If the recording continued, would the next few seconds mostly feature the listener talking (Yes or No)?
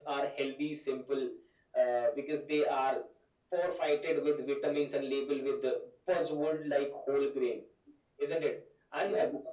Yes